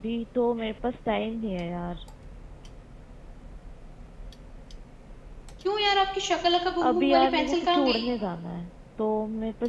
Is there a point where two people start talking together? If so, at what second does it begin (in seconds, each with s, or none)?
6.8 s